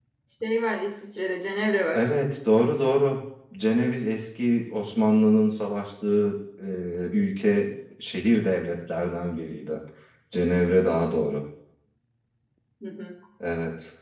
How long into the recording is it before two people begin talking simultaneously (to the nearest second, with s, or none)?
none